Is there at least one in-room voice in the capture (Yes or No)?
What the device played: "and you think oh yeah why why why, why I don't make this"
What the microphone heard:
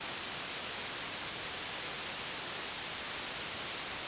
No